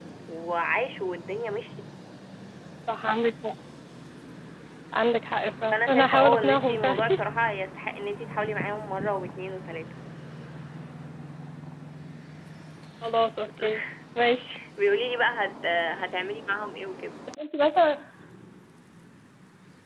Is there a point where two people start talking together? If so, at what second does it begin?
5.7 s

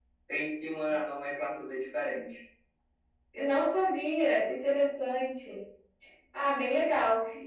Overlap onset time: none

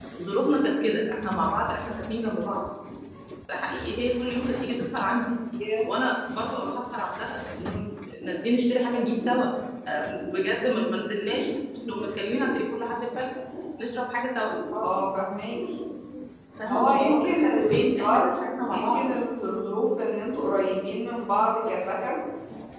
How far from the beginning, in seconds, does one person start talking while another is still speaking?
16.7 s

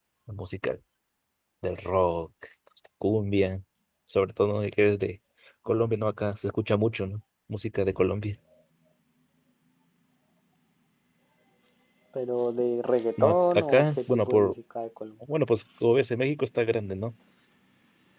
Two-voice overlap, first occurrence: 13.2 s

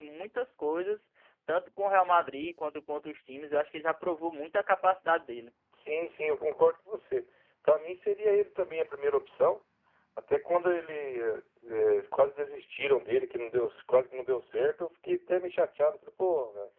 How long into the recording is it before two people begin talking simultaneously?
none

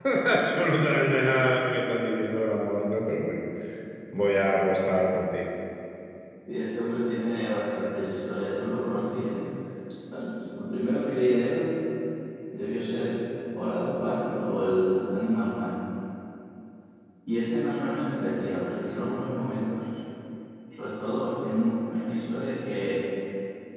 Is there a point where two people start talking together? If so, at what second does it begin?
none

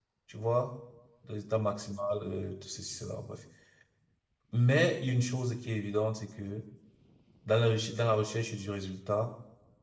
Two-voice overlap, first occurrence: none

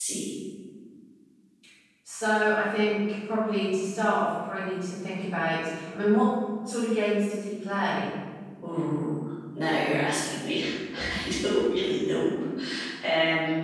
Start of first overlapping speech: none

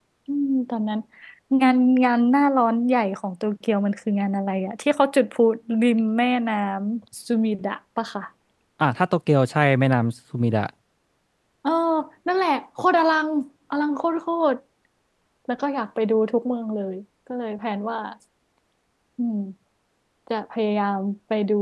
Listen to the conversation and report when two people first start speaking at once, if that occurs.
none

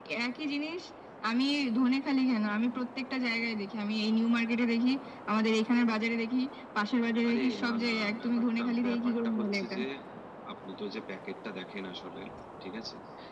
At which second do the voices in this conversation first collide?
7.3 s

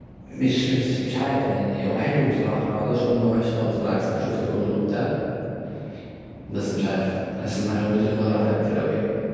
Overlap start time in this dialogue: none

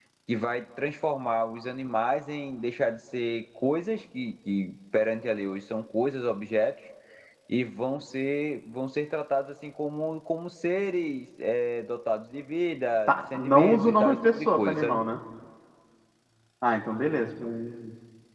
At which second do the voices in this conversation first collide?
13.1 s

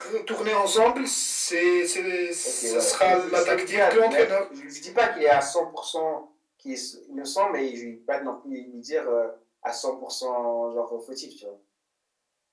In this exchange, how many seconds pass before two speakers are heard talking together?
2.5 s

